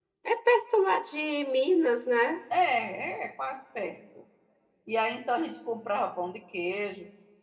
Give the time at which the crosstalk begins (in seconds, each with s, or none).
none